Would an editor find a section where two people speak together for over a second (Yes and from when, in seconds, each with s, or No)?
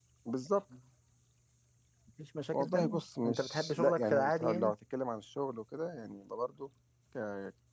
Yes, from 2.5 s